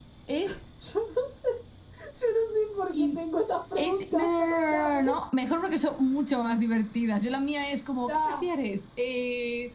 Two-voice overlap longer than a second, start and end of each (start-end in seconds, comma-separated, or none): 3.8-5.0